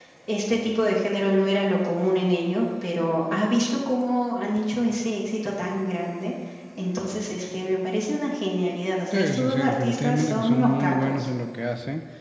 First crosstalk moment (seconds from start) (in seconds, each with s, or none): 9.1 s